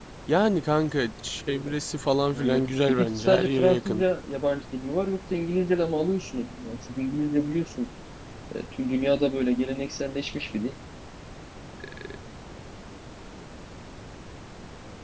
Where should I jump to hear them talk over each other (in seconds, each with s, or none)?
2.3 s